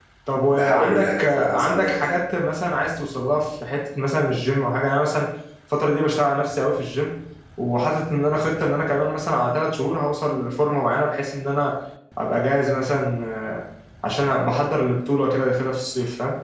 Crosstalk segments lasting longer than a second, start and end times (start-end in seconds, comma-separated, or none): 0.5-2.1